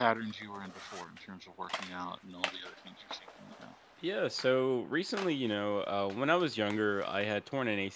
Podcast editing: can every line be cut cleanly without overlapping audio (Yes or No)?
Yes